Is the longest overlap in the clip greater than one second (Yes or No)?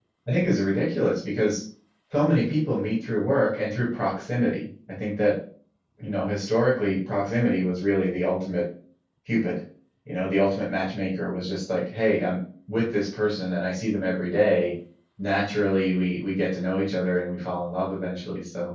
No